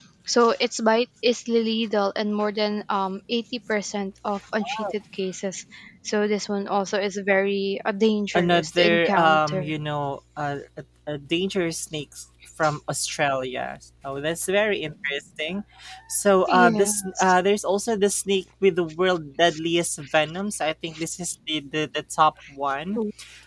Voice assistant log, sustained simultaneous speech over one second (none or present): present